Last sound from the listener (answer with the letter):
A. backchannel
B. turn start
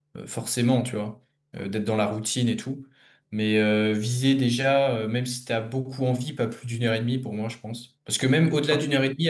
A